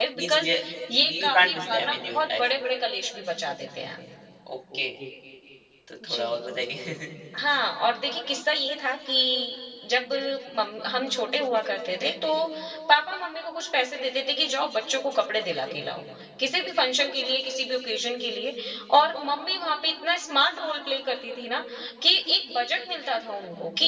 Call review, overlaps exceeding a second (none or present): present